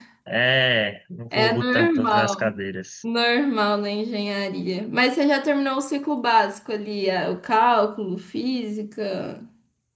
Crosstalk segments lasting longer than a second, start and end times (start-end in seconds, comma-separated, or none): 1.4-2.6